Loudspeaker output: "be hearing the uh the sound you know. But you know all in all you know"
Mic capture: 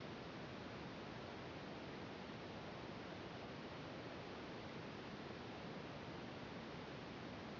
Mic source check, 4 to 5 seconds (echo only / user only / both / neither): neither